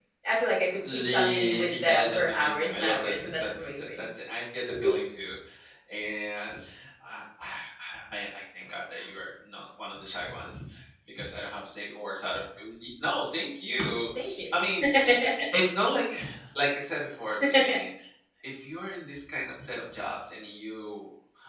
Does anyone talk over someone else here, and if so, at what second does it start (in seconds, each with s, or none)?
0.9 s